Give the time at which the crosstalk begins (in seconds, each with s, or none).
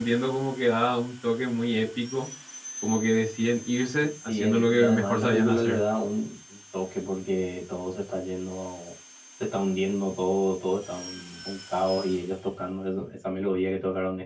4.0 s